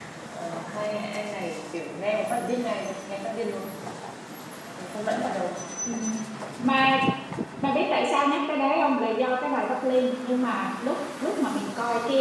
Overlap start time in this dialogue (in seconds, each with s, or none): none